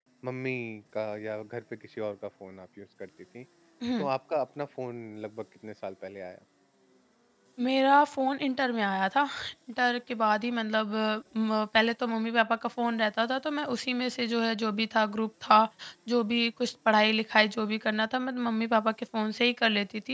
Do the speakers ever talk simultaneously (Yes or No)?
No